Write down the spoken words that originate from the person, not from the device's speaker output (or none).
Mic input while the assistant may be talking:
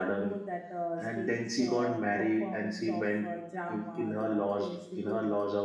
none